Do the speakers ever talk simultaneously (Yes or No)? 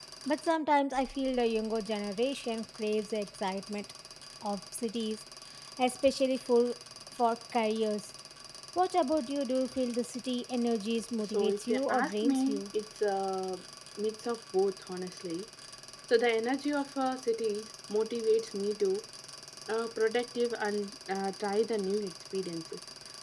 Yes